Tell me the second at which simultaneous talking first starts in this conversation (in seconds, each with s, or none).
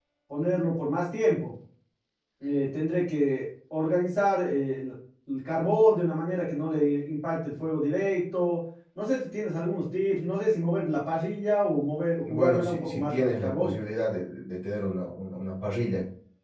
12.2 s